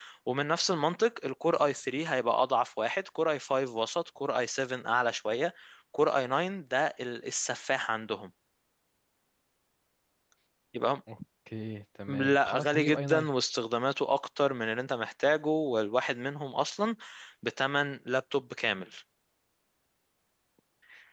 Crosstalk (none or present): present